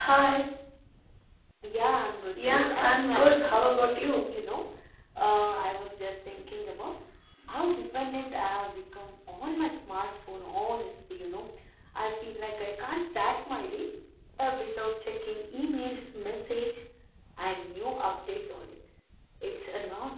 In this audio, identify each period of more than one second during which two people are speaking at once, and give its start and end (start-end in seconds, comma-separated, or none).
2.4-3.6